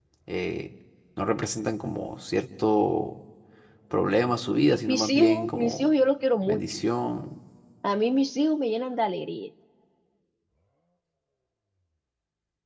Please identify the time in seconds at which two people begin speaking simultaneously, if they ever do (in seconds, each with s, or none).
4.7 s